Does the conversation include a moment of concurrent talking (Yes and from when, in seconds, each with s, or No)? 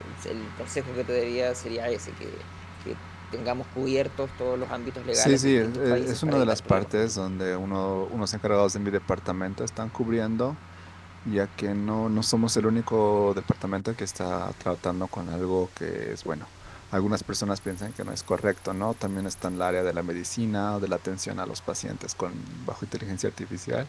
Yes, from 5.1 s